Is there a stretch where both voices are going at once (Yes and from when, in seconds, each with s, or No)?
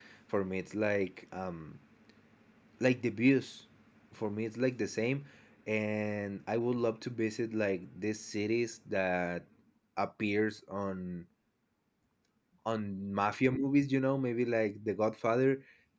No